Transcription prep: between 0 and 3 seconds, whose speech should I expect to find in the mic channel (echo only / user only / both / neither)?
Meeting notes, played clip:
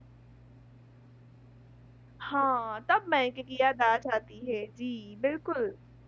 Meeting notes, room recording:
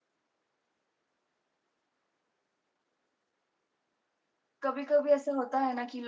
neither